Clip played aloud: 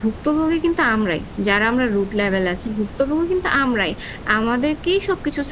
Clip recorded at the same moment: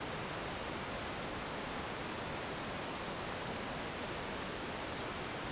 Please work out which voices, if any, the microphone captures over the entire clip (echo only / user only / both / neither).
neither